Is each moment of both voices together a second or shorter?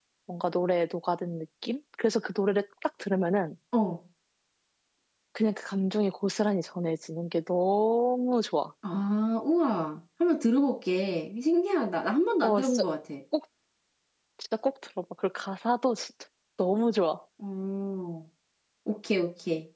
Yes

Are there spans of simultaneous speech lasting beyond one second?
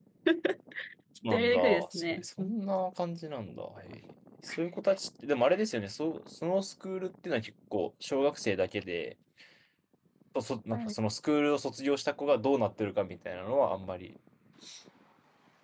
Yes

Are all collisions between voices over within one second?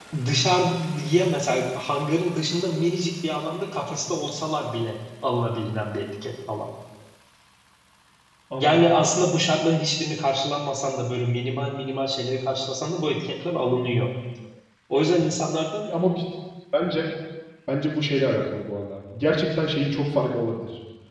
Yes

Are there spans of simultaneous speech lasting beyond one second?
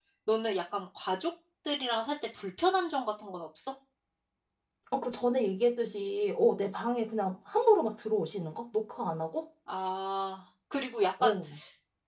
No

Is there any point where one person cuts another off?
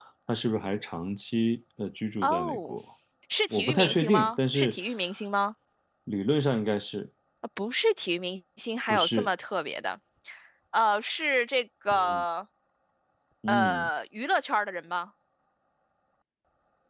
Yes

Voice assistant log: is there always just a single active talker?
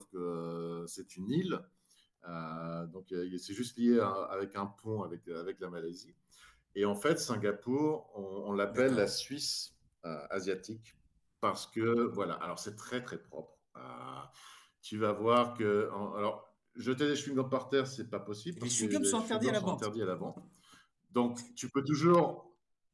No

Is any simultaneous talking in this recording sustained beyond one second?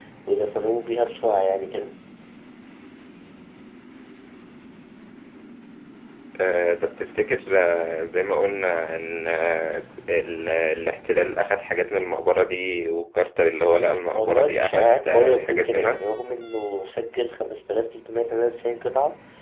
Yes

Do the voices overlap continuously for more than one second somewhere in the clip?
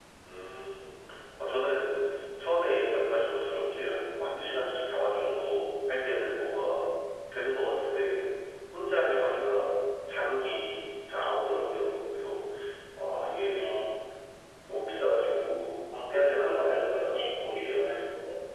Yes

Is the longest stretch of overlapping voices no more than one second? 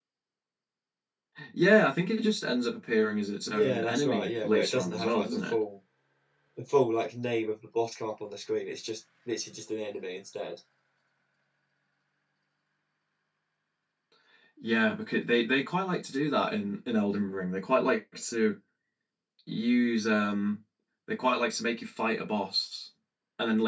No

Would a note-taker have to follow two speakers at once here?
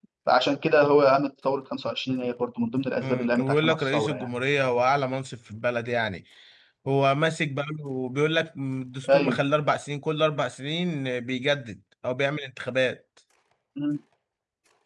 Yes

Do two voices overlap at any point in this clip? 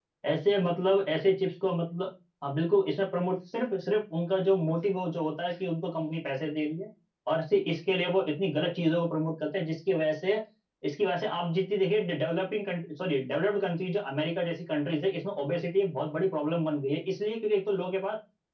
No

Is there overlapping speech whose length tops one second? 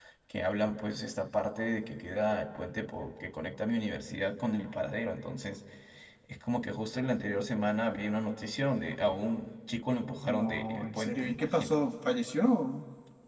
Yes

